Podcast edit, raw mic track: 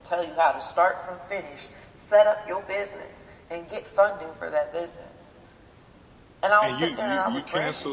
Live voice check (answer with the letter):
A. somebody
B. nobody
A